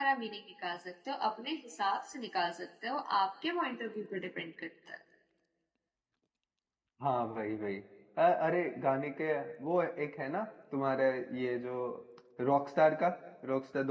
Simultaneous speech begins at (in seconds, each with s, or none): none